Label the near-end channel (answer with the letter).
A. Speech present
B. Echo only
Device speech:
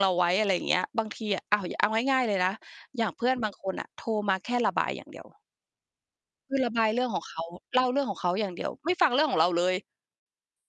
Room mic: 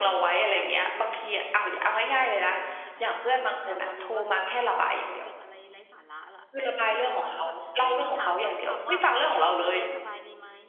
A